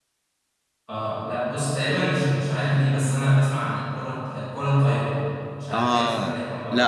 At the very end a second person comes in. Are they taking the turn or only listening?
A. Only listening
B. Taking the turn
B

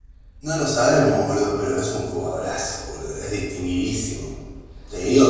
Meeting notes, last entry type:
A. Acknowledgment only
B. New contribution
A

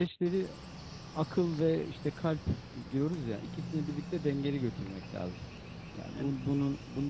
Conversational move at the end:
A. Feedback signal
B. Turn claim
A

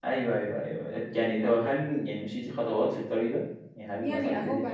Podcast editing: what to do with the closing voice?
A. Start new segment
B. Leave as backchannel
A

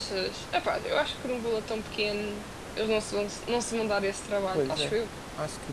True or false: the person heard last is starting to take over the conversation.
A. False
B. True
B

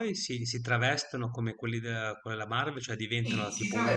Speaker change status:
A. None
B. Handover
B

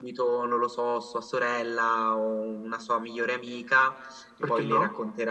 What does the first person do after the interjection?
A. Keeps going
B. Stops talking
A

